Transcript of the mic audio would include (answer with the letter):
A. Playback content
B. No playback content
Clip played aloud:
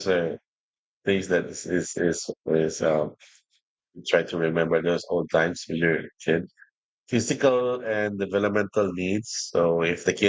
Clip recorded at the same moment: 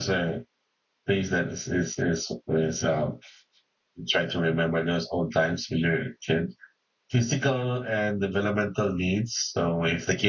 A